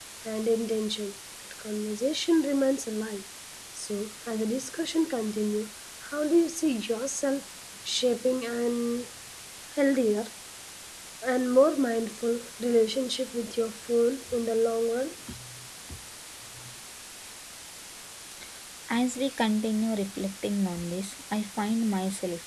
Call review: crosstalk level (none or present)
none